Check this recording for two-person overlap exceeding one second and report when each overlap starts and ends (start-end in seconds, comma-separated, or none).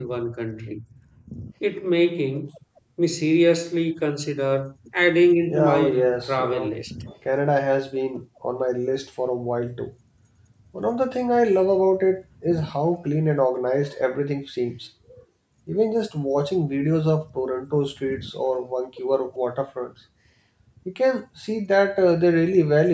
5.5-6.7